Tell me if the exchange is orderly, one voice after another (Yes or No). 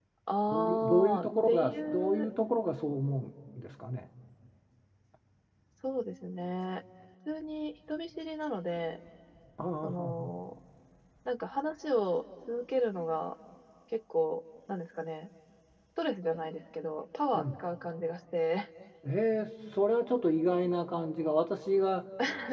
No